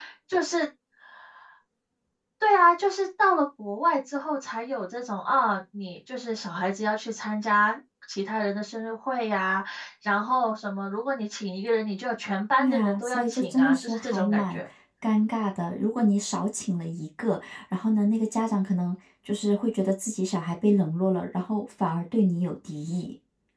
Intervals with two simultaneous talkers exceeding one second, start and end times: 12.6-14.6

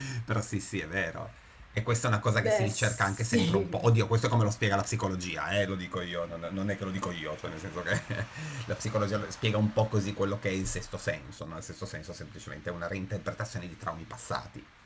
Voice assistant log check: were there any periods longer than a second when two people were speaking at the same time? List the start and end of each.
2.2-3.9

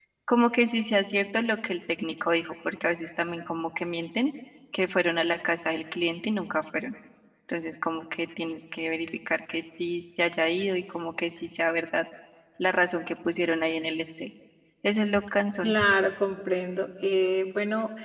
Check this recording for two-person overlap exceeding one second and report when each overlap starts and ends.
none

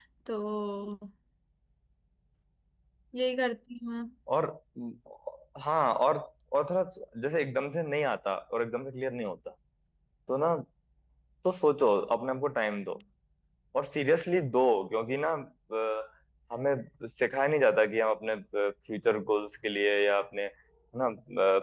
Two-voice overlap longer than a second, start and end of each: none

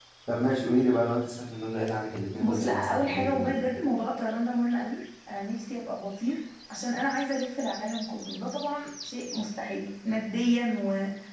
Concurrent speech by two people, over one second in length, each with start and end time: 2.4-3.6

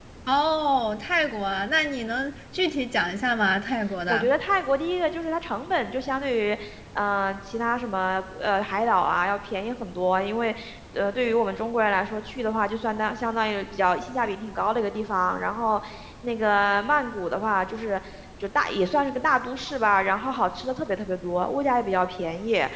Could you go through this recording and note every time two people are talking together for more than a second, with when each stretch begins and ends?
none

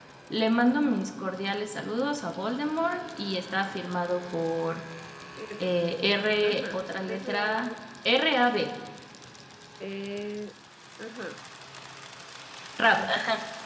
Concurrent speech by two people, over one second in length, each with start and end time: 6.4-7.7

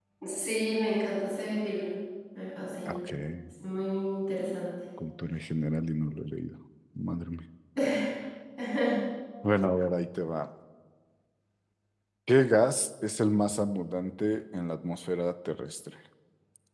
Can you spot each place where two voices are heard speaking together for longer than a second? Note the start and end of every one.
none

